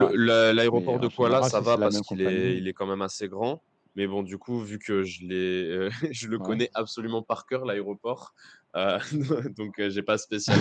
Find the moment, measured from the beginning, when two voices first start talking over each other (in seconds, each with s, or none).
0.7 s